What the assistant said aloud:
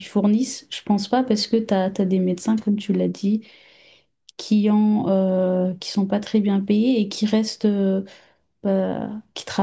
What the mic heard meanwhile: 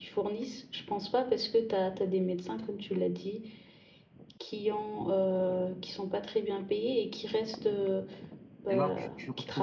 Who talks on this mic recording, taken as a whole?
both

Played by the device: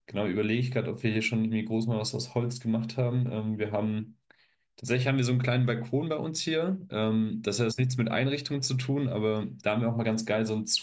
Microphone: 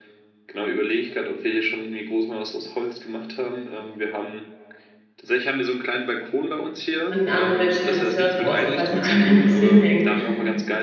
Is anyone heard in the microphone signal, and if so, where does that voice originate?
both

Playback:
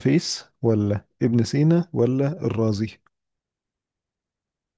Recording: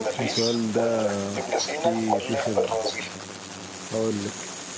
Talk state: both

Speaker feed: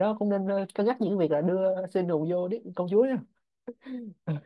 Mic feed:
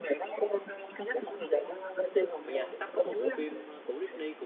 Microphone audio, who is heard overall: both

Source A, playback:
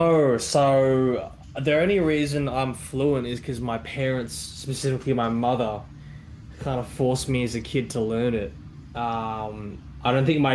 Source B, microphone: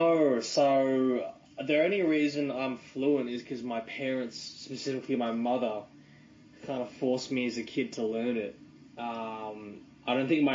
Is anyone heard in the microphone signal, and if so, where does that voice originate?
echo only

